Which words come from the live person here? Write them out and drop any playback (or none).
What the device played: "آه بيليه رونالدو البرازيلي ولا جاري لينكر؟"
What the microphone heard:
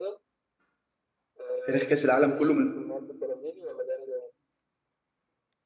في تاريخ كأس العالم كله من